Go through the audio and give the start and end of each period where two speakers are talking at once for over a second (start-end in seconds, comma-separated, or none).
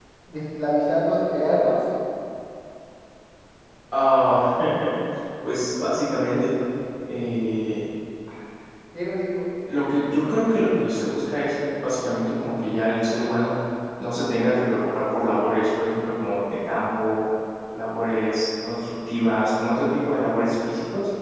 none